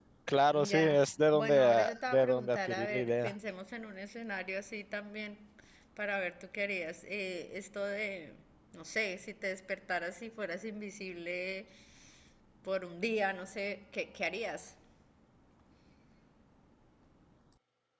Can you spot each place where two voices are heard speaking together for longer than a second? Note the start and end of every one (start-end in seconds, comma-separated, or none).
0.5-3.3